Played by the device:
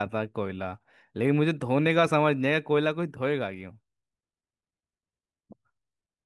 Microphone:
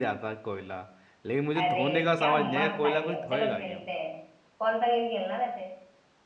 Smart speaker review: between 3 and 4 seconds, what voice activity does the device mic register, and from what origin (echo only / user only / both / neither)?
both